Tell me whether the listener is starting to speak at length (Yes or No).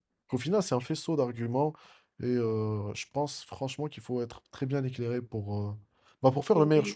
Yes